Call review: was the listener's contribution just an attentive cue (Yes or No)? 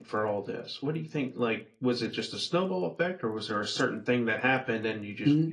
No